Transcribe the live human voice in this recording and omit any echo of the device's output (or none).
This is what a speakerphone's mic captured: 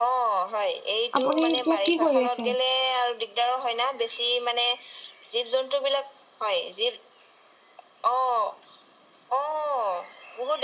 আপুনি এতিয়া কি কৰি আছে